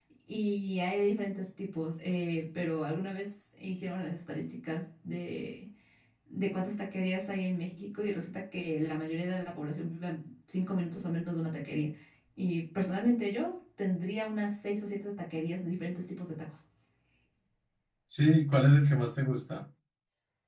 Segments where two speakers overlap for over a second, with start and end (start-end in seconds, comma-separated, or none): none